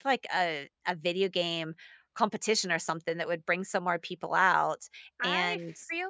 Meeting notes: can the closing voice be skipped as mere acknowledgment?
No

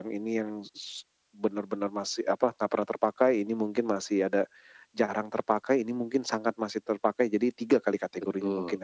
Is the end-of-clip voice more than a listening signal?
Yes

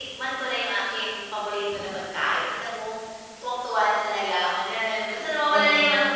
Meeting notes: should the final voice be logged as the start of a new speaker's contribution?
No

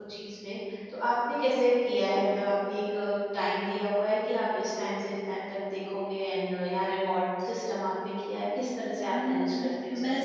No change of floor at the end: No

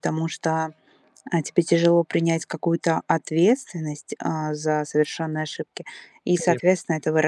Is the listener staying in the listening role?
Yes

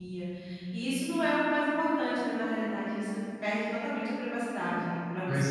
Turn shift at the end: Yes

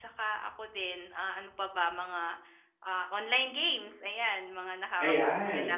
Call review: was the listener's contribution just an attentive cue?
No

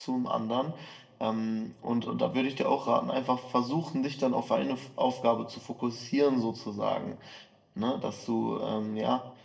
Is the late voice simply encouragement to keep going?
Yes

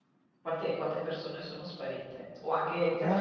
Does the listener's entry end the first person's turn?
Yes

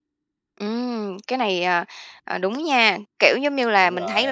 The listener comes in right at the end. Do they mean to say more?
No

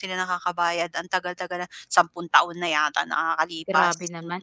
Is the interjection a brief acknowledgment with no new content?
No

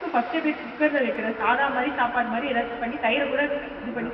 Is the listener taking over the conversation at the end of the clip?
Yes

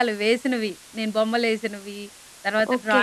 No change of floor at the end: No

